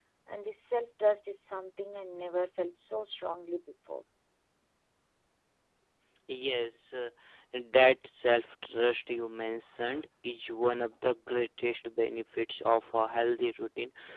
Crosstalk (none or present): none